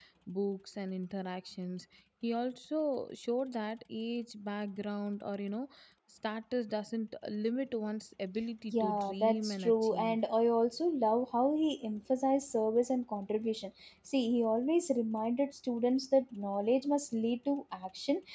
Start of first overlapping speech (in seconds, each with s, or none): 8.7 s